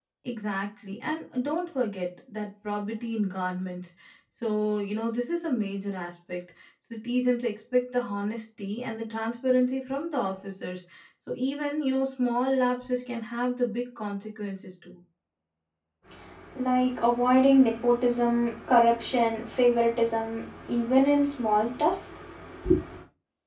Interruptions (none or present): none